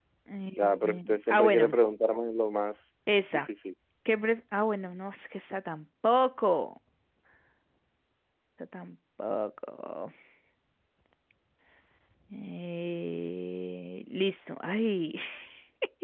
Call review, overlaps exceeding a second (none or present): present